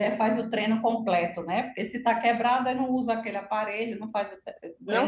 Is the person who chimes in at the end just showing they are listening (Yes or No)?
No